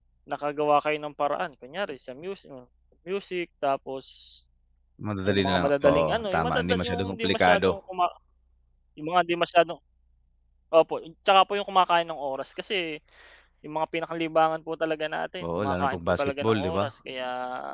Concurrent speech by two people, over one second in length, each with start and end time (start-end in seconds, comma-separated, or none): 5.3-7.8, 15.4-16.8